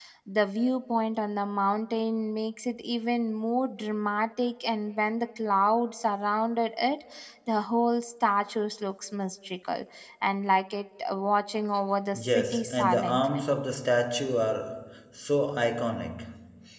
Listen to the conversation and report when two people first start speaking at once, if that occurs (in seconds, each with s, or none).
12.1 s